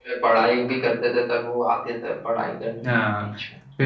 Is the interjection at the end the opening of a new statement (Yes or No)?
Yes